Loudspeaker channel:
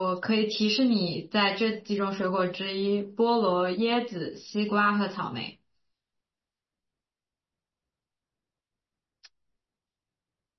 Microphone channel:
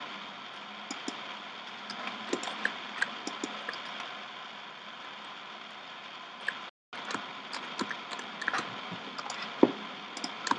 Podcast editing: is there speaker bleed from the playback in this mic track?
No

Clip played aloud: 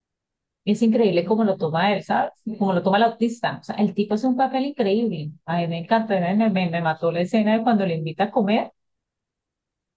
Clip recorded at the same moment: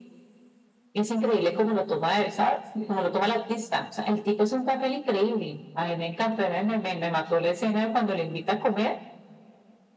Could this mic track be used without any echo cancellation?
No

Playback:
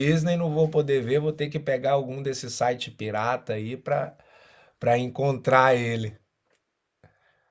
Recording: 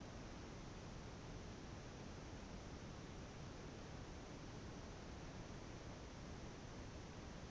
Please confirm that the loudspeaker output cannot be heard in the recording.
Yes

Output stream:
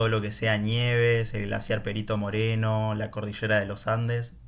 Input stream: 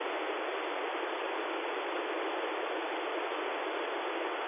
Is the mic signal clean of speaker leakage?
Yes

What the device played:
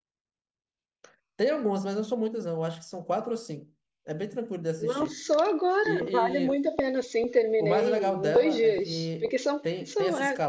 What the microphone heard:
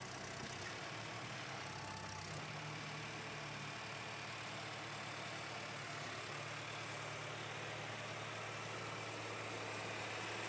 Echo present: No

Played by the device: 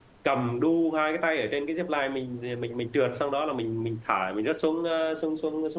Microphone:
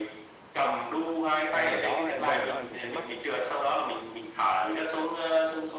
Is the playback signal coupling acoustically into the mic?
Yes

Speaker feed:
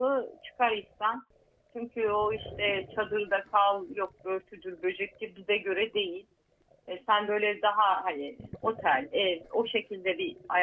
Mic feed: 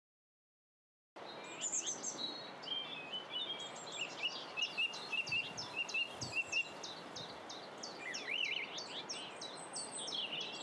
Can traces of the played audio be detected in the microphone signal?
No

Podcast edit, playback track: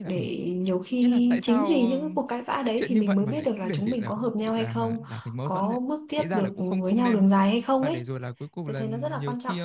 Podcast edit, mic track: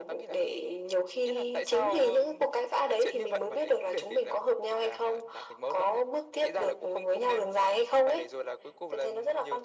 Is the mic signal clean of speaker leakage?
No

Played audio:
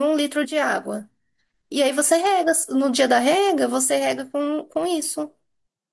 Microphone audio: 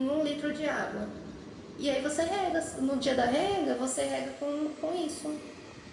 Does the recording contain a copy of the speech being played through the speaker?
Yes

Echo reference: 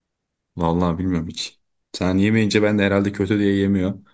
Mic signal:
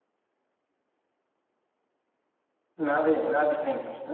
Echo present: No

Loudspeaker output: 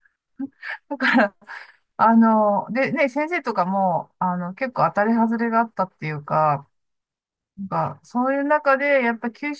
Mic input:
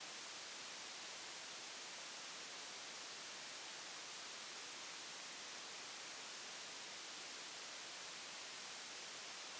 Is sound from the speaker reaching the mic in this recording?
No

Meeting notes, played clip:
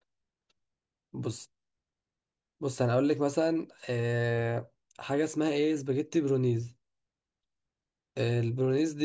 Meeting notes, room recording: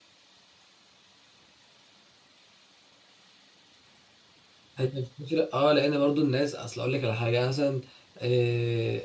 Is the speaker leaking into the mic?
No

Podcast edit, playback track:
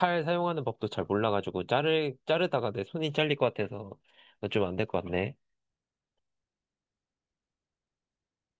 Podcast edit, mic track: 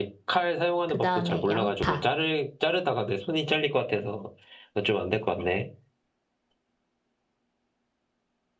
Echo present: Yes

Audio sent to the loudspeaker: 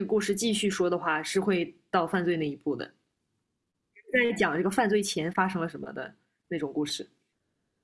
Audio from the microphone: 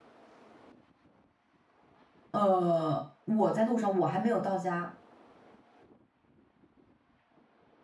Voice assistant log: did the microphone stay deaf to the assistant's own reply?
Yes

